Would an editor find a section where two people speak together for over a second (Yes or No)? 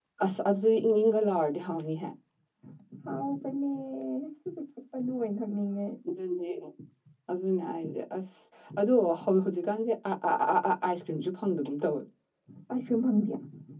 No